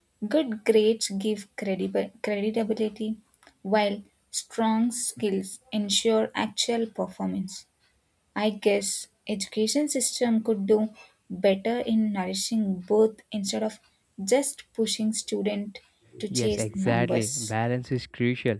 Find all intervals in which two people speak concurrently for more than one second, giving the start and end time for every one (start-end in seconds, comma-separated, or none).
16.3-17.5